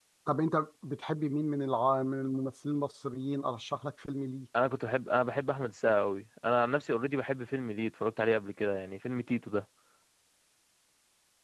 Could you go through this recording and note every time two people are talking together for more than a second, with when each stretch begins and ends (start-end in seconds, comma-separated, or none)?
none